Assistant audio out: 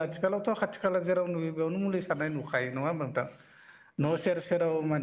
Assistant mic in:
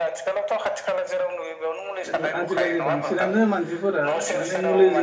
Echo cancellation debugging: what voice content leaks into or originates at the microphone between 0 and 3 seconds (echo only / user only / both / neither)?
both